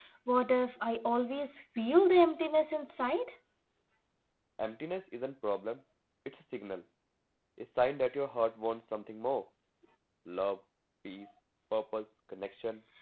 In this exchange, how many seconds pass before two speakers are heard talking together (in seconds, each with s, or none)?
none